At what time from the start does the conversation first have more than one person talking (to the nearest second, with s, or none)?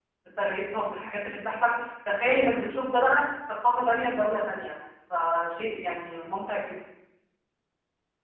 none